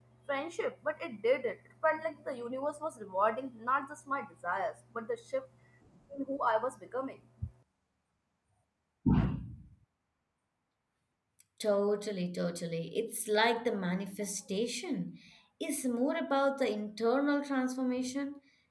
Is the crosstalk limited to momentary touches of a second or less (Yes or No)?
Yes